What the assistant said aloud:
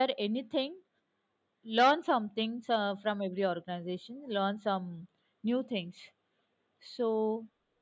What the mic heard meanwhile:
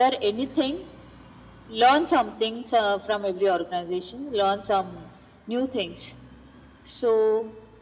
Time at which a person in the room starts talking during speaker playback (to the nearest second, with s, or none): none